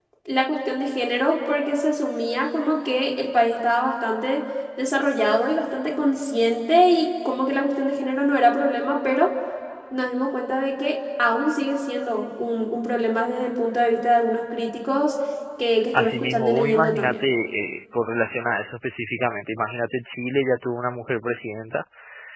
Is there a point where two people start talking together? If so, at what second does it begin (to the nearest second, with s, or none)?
16 s